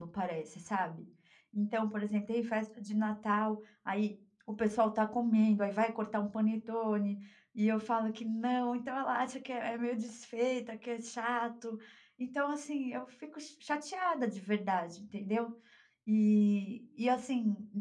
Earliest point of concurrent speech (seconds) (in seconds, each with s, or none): none